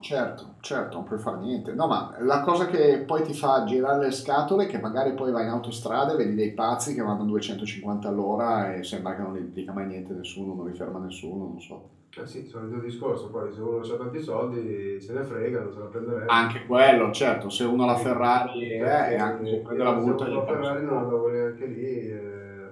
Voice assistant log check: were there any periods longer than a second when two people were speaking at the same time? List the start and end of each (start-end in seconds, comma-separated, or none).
18.8-21.0